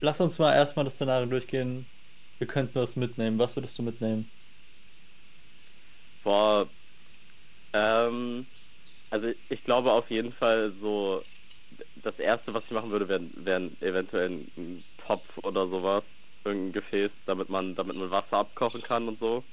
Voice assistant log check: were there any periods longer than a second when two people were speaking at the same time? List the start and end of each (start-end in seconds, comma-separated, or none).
none